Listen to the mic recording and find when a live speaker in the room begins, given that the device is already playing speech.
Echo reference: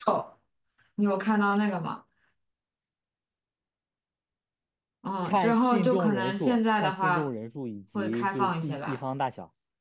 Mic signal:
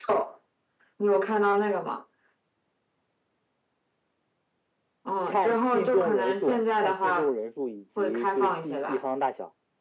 none

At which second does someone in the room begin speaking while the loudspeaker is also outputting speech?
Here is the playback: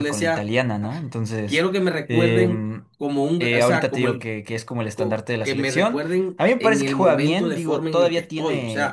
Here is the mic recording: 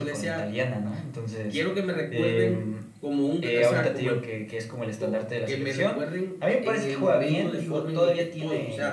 none

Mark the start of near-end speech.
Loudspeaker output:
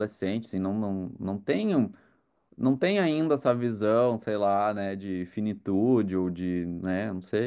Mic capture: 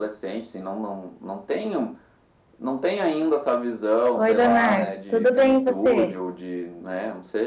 4 s

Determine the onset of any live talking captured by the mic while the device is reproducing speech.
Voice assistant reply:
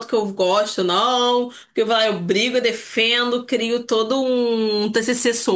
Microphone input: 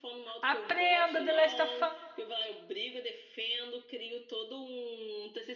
0 s

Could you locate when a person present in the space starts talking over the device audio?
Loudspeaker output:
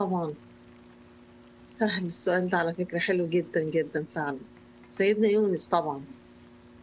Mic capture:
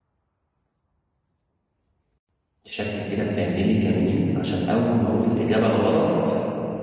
3 s

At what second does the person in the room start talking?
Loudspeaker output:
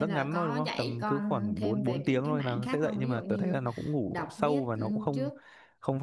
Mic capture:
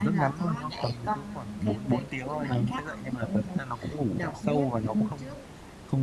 none

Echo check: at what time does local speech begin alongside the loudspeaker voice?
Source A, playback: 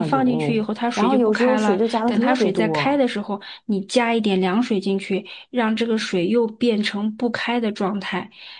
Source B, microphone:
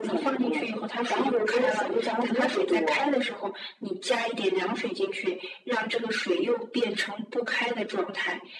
none

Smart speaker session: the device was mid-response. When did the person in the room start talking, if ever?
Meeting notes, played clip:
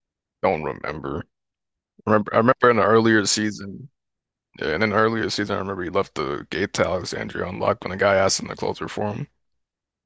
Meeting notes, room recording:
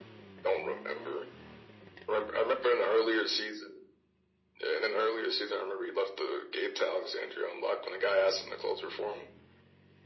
none

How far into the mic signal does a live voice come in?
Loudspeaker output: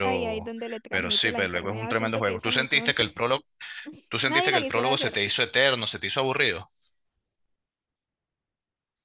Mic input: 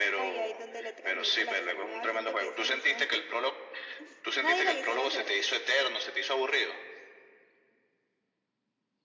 none

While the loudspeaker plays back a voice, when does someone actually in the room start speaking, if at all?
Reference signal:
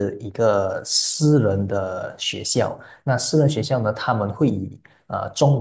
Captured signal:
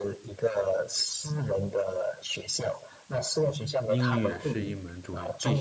4 s

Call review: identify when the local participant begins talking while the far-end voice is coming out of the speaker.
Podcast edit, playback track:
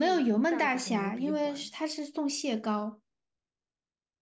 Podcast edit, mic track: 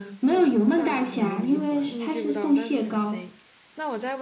2 s

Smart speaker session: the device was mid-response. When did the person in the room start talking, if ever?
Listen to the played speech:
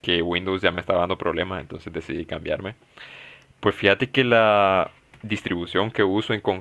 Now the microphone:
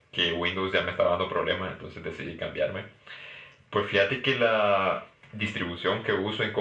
none

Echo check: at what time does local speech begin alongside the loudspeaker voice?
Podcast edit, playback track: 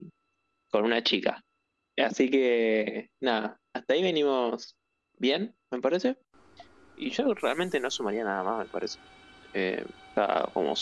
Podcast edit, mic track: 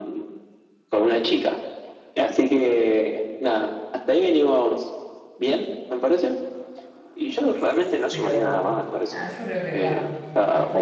8 s

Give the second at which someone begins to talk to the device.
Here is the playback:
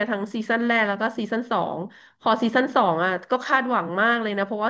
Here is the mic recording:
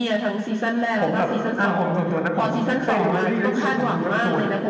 1 s

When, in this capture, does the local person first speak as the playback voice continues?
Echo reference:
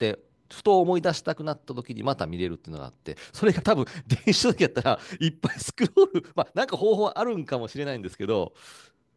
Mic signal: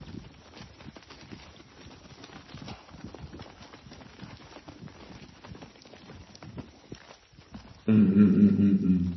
8 s

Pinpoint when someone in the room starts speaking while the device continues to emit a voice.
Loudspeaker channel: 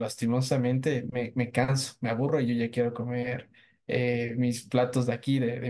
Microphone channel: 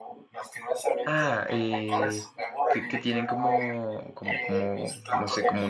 1 s

